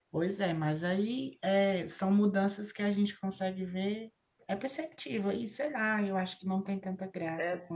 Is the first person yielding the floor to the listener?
Yes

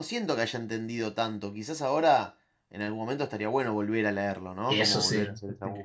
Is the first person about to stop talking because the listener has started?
No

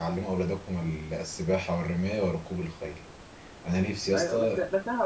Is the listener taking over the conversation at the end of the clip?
Yes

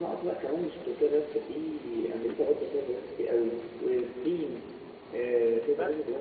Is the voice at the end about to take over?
Yes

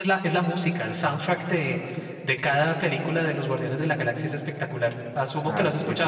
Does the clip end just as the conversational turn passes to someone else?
Yes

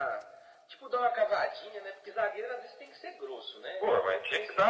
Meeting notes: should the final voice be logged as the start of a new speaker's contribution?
Yes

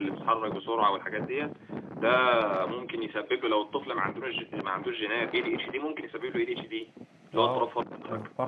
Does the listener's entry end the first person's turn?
Yes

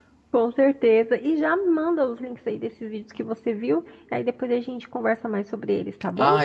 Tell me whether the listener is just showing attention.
No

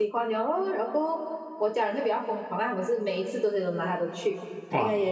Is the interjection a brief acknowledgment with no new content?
Yes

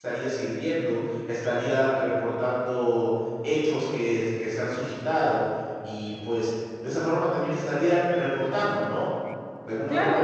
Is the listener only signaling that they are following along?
No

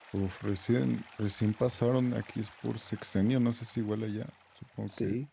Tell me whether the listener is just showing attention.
No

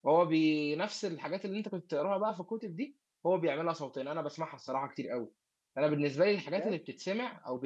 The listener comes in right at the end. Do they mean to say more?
No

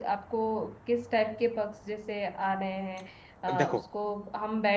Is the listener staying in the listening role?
Yes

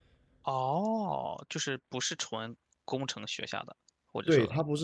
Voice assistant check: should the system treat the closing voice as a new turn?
Yes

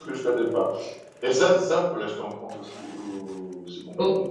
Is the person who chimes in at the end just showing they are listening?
No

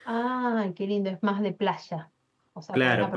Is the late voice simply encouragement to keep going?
No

